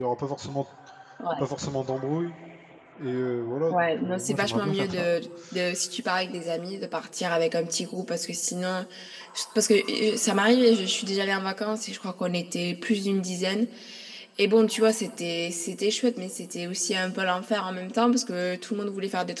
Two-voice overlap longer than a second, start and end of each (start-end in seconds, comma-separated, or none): 3.7-5.1